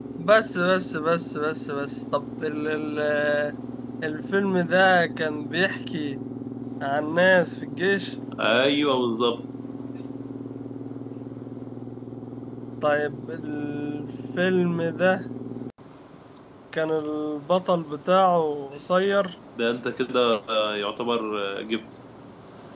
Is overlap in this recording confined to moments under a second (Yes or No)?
Yes